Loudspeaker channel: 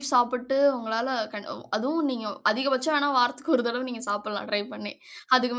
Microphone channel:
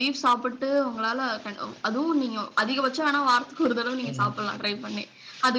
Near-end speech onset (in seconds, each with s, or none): 4.0 s